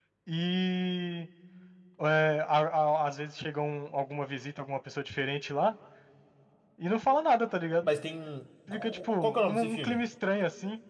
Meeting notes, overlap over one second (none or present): present